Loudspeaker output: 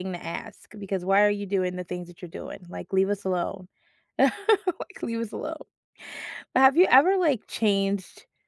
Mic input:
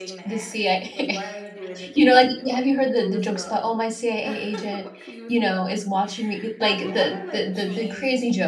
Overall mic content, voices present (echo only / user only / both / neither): both